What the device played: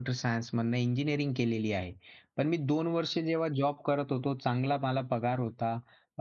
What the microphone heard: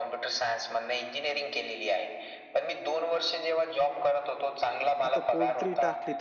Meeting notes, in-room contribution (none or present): present